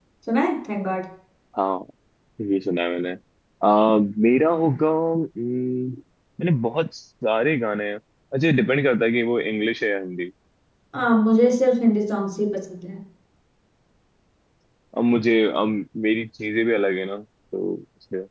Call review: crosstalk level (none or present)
none